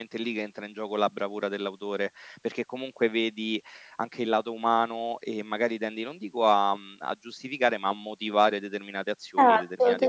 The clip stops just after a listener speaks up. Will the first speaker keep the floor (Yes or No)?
No